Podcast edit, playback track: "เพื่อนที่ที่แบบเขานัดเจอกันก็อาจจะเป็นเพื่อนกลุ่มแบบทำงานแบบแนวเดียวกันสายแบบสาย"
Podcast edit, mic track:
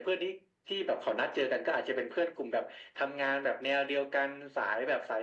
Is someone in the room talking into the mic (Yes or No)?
No